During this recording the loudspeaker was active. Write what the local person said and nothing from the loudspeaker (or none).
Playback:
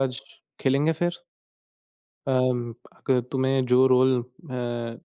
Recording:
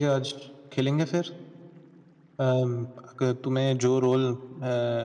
none